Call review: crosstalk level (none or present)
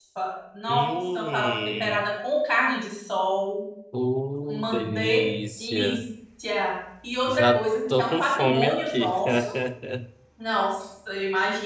present